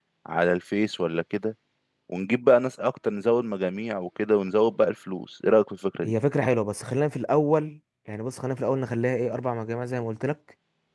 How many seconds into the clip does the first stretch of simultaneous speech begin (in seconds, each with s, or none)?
none